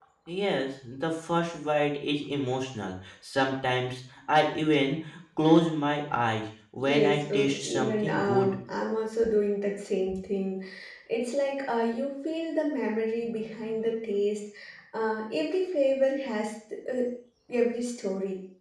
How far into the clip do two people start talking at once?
7 s

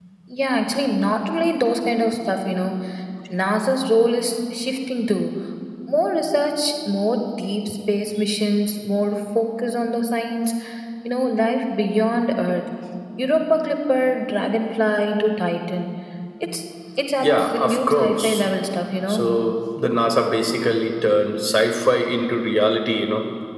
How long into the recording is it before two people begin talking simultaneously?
17 s

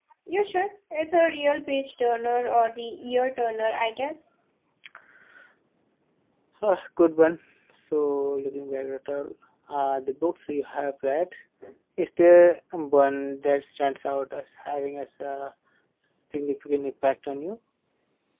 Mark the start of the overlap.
none

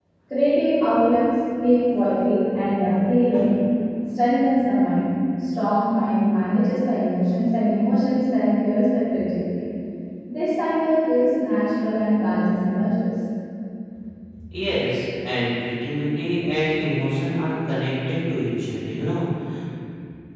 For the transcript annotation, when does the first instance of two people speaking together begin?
none

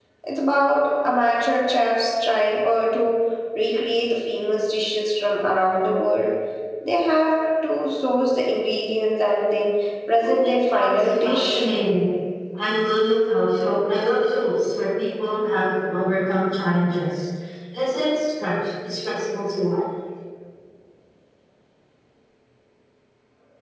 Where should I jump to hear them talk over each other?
10 s

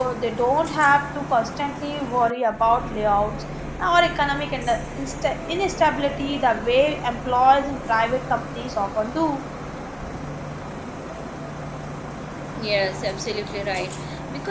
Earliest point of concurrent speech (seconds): none

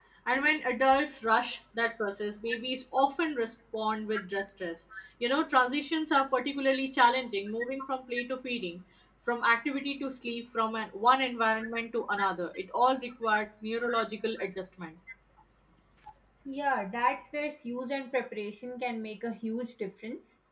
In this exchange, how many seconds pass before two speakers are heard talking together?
none

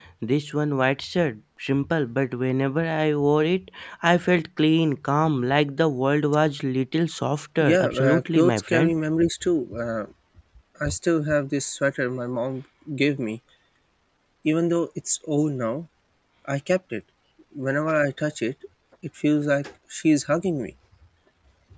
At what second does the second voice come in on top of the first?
8 s

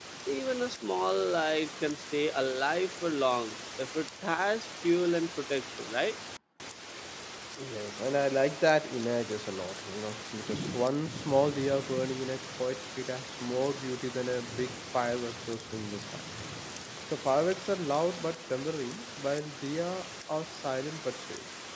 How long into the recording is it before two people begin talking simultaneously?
none

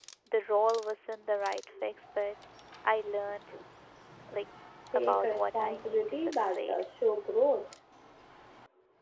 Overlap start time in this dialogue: 5 s

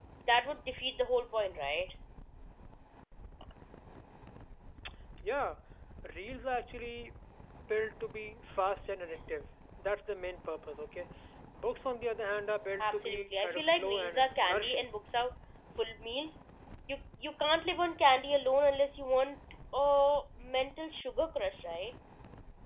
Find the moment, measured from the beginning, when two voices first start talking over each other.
13 s

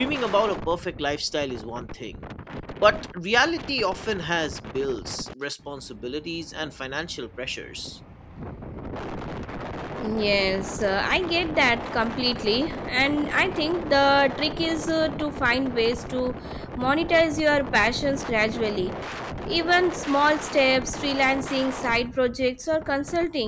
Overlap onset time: none

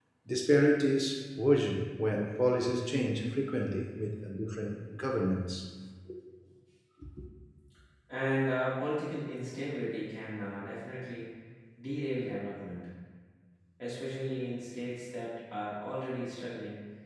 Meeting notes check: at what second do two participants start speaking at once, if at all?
none

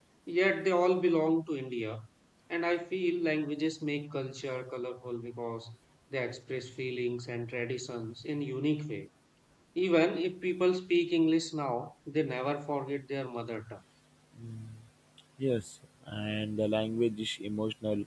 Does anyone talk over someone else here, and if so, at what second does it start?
none

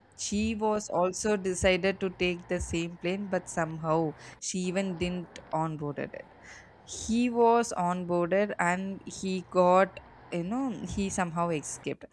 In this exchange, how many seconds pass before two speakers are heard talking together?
none

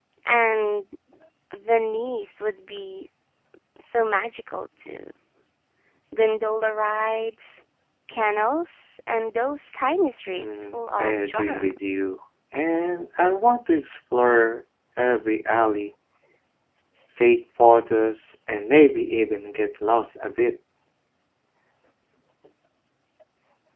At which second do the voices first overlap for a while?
10 s

